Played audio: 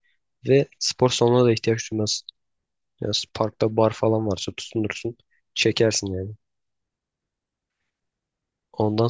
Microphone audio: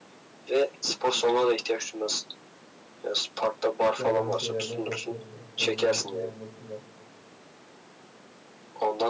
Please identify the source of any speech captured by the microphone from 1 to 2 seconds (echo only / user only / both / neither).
echo only